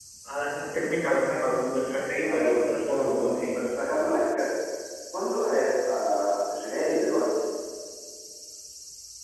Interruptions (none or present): present